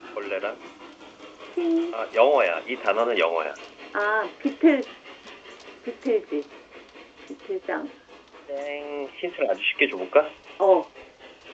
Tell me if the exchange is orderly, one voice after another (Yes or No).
Yes